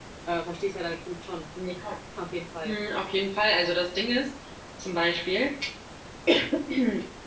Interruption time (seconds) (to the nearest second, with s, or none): none